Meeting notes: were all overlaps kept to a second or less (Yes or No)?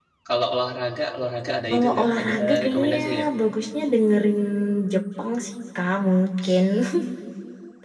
No